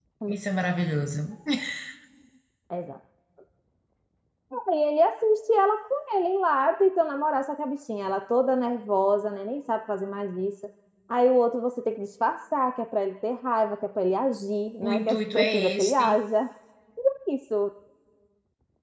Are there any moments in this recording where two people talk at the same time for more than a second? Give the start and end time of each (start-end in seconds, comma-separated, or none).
14.8-16.1